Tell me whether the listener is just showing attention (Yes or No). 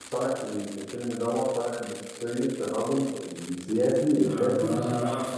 No